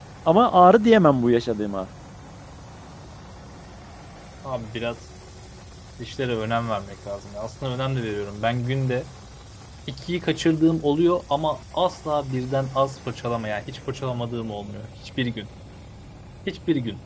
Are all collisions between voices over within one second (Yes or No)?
Yes